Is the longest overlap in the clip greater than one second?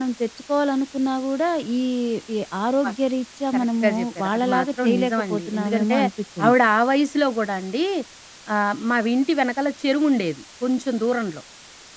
Yes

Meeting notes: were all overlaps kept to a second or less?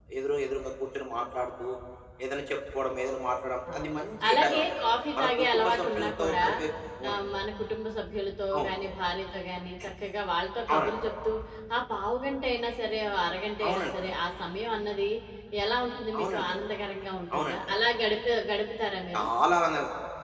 No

